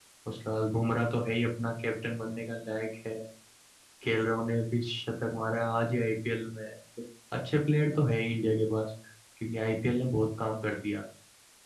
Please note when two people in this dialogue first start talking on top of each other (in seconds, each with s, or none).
none